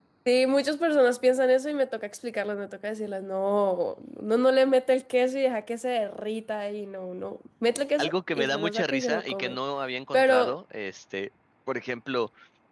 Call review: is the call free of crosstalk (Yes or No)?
No